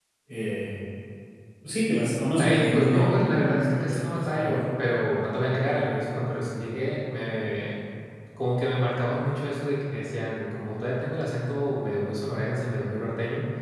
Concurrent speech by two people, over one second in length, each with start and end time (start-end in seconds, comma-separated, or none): 2.4-4.6